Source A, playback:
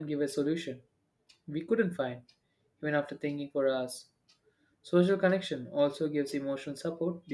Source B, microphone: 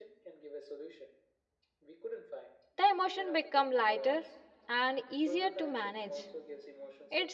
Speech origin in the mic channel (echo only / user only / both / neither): both